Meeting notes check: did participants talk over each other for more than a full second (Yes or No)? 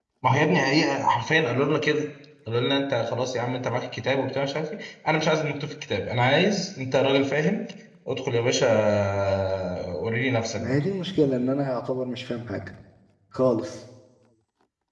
No